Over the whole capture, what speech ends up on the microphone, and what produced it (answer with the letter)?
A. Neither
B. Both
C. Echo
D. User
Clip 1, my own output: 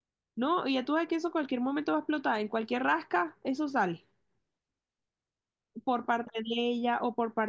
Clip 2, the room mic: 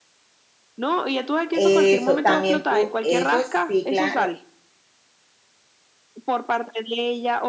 B